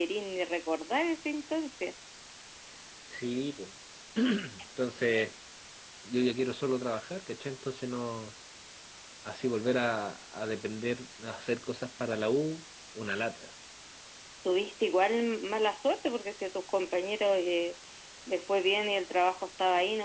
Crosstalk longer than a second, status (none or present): none